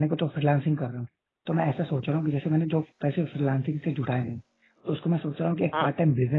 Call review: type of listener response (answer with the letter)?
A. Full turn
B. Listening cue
B